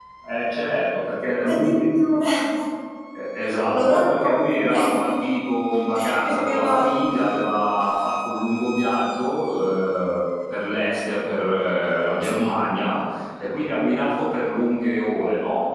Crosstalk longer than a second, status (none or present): present